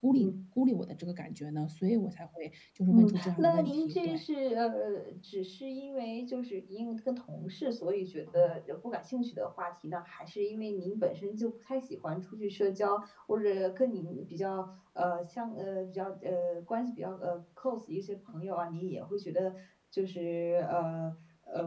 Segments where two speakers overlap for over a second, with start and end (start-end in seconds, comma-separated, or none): 2.9-4.2